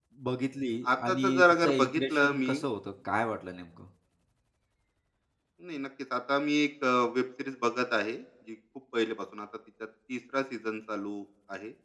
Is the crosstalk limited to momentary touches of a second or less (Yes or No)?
No